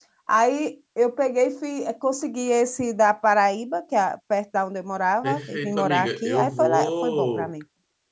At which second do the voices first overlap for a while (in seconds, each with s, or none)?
5.2 s